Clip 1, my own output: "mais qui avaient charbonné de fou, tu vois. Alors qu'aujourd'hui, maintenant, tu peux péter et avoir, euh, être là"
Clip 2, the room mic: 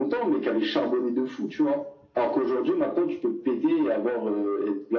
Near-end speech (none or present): none